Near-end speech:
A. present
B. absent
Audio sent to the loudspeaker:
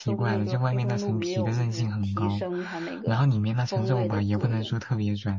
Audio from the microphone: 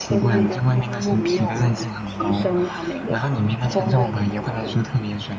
B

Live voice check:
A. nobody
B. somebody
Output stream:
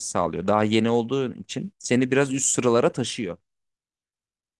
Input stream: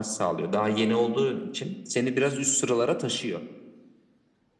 A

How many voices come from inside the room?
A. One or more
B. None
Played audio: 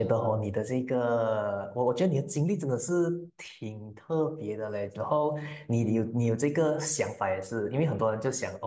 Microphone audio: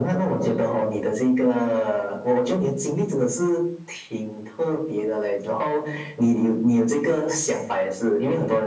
B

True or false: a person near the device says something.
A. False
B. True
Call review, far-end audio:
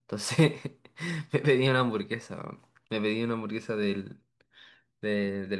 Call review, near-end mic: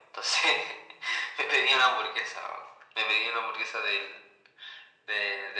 A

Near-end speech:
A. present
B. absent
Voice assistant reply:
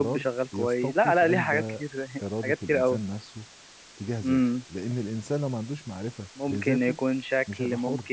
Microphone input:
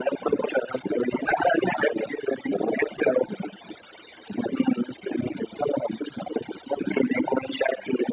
B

